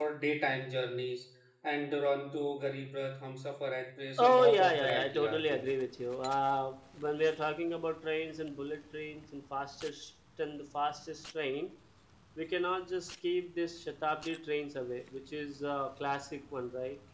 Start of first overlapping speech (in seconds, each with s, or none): 4.2 s